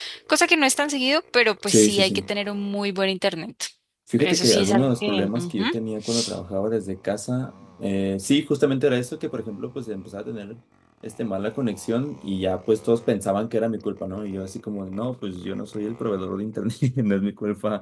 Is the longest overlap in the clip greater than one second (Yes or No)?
Yes